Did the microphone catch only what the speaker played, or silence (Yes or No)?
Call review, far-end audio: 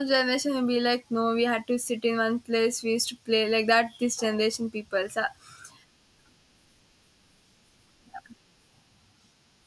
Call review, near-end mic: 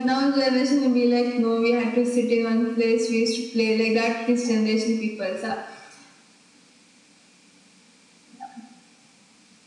Yes